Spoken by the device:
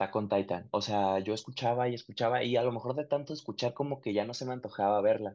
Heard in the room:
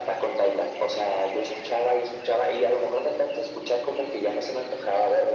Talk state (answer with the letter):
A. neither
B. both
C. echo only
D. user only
C